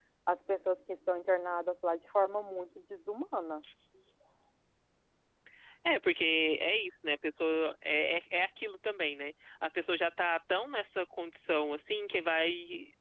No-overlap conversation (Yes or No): Yes